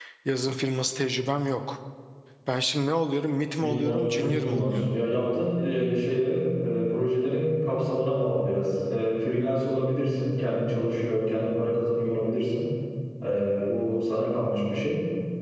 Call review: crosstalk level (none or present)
present